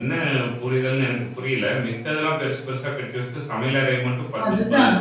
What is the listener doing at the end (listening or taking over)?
listening